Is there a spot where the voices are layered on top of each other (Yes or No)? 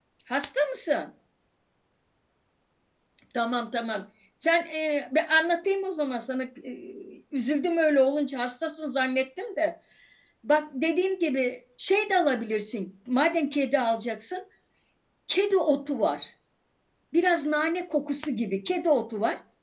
No